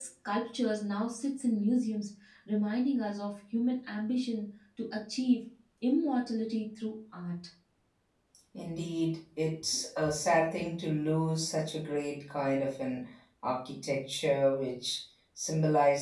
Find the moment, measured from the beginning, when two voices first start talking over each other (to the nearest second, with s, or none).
none